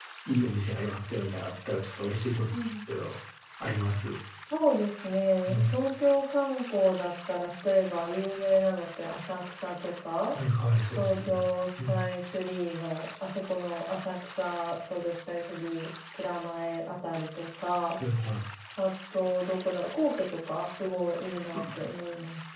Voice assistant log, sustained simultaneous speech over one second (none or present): none